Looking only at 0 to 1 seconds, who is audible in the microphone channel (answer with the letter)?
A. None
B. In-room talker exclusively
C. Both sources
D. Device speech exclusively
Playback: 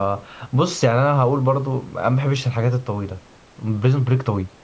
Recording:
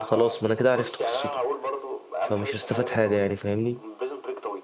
C